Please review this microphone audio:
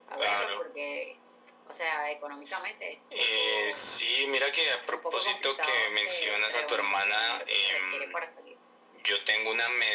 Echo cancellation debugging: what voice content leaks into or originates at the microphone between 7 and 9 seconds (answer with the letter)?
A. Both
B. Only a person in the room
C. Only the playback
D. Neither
C